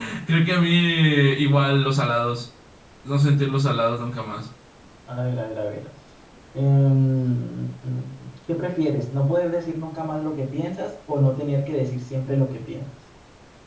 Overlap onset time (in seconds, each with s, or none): none